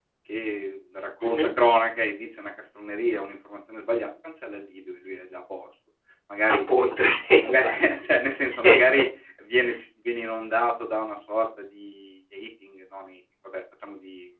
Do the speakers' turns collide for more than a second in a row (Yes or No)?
No